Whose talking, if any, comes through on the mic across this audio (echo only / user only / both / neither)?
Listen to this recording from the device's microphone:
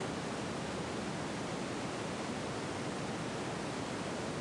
neither